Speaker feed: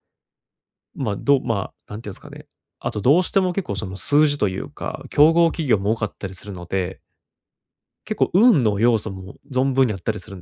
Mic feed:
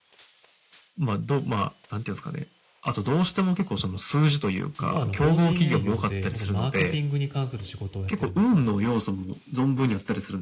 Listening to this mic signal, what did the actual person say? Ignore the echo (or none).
今あの、法人営業で、ま、そマーケティングに関する仕事をやってるんですよ。